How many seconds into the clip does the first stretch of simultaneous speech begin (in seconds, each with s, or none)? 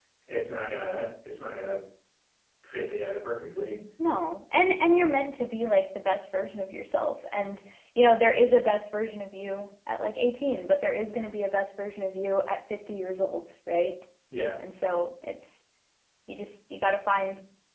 none